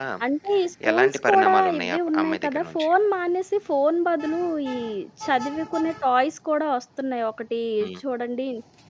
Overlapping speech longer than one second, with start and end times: 0.9-2.9

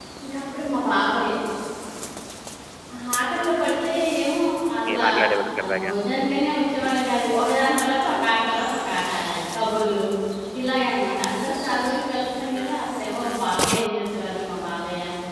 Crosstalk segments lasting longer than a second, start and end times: none

